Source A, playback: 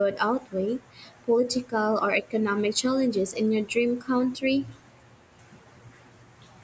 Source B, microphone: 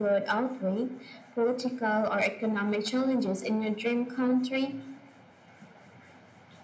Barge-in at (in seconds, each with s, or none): none